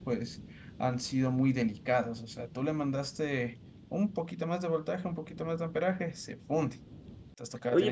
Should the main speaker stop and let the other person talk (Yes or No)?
Yes